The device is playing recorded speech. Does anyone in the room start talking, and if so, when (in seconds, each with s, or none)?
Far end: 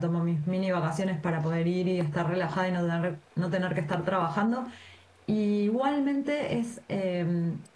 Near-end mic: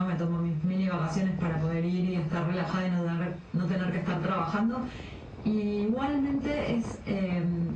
none